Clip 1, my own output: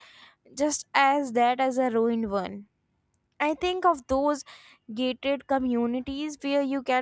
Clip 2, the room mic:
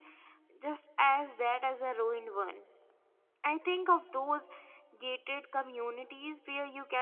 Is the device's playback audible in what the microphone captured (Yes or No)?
Yes